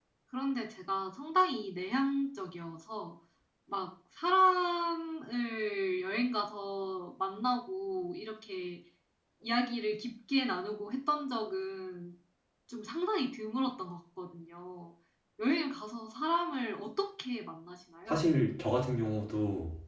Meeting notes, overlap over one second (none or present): none